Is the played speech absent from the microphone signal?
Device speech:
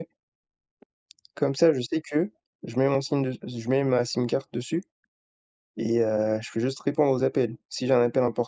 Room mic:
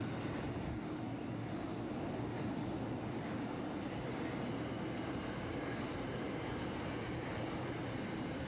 Yes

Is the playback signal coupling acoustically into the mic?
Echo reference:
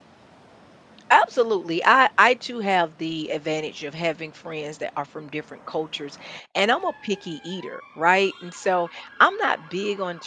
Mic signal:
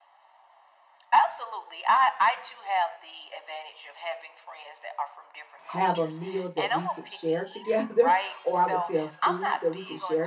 Yes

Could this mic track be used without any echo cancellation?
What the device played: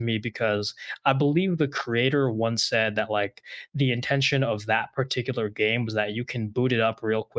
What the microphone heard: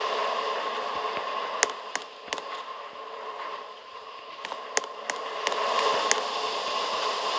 Yes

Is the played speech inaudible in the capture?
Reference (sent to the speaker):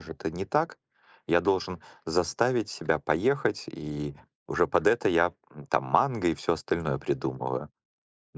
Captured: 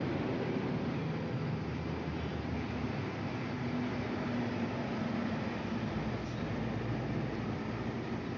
Yes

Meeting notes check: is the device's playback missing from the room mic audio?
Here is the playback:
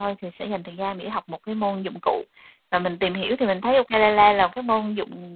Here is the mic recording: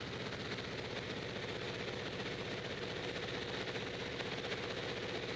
Yes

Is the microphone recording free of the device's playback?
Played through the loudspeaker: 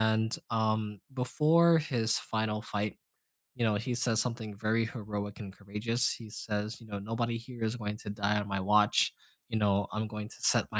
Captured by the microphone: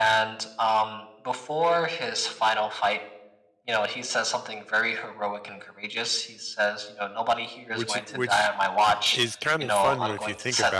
No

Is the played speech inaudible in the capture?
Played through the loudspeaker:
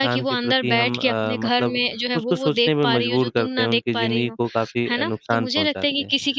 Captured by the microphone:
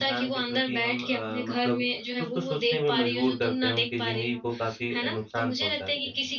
No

